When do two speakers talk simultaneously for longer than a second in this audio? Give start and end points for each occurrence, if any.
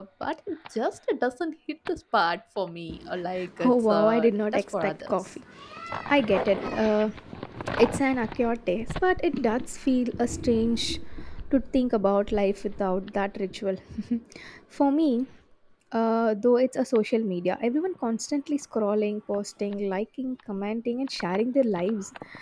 3.6-5.1

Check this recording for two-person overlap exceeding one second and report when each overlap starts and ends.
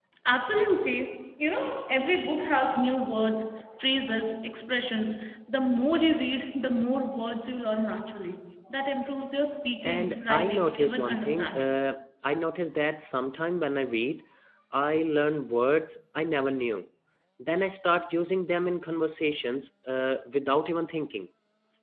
9.8-11.8

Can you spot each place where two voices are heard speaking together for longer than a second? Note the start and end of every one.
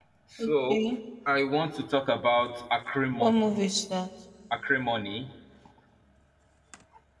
none

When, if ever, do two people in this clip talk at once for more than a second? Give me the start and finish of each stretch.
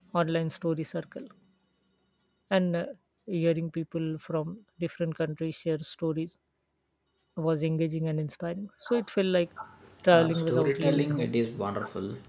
10.1-11.3

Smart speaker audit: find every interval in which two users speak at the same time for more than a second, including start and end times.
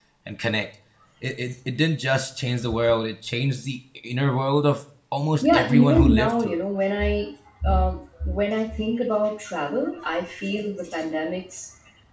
5.4-6.6

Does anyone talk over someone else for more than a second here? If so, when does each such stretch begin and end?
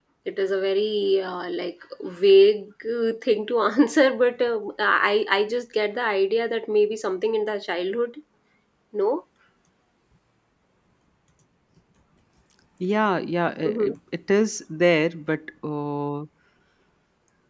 none

